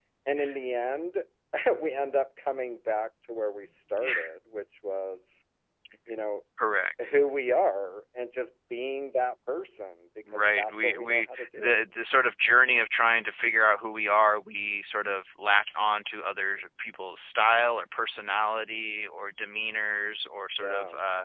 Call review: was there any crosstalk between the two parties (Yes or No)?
Yes